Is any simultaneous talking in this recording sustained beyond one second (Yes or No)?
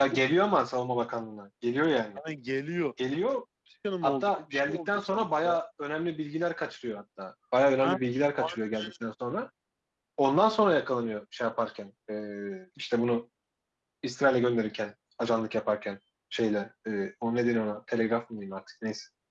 Yes